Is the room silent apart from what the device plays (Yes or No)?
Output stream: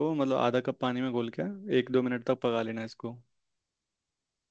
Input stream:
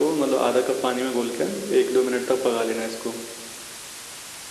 Yes